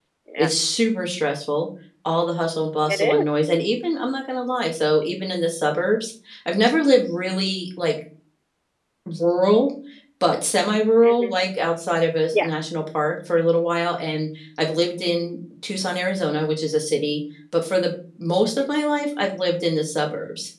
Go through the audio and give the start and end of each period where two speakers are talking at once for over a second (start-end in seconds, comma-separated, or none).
none